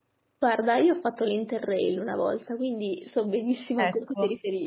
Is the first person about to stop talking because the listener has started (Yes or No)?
No